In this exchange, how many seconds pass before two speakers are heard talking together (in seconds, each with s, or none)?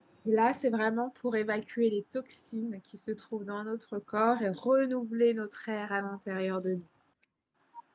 none